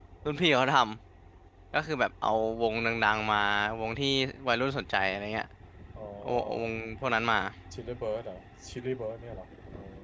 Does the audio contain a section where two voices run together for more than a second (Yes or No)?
No